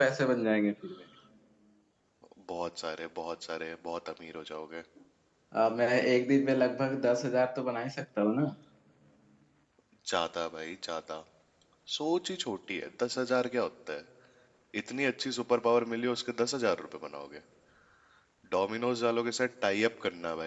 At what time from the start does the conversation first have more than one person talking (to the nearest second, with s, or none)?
none